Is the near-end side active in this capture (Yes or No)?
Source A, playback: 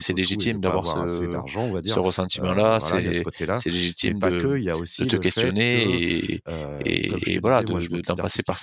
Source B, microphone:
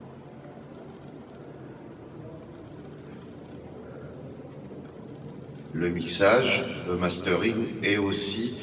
Yes